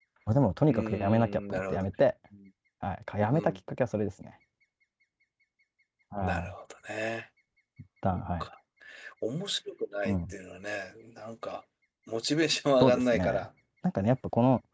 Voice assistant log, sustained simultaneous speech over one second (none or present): present